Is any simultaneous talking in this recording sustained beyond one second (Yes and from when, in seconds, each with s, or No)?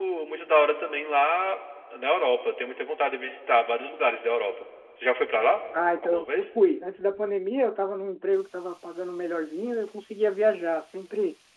No